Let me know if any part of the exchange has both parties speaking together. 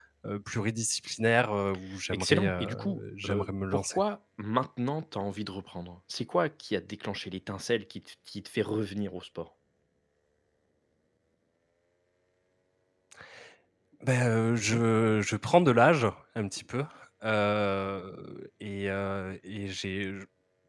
Yes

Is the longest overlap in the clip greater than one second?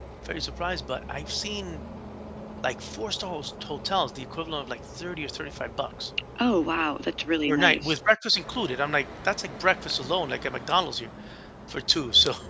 No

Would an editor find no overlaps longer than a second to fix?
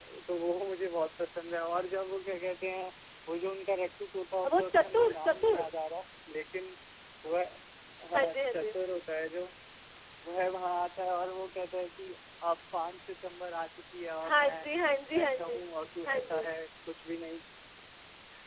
No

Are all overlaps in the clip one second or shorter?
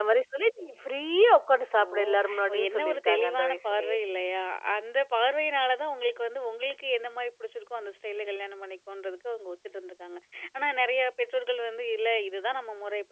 No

